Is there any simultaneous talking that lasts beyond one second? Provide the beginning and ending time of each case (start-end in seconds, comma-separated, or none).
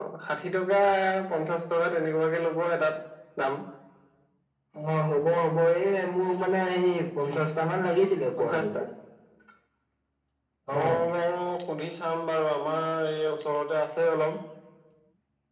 none